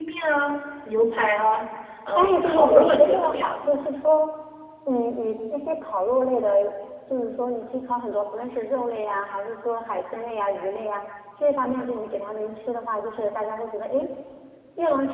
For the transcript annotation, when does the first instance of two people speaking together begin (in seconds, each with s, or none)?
2.1 s